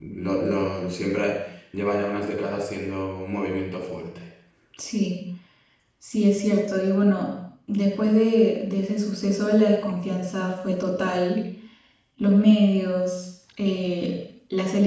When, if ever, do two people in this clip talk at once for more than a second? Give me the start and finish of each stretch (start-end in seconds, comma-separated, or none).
none